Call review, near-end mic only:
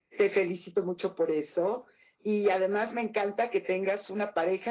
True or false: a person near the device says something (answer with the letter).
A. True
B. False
B